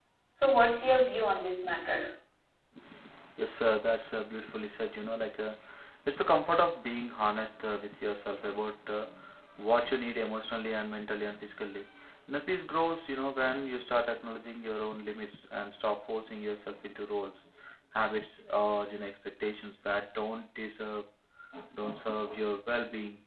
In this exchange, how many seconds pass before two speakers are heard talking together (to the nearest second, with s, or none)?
none